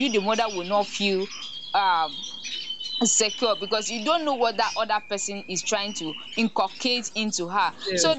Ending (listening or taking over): listening